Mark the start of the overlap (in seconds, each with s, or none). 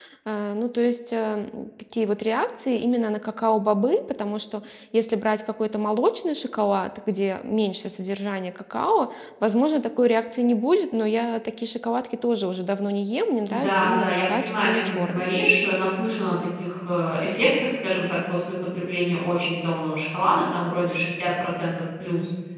13.4 s